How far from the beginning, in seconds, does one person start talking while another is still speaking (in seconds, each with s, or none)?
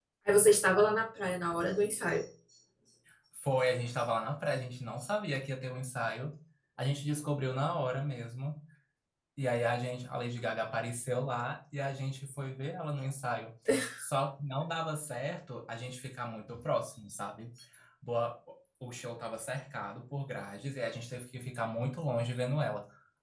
none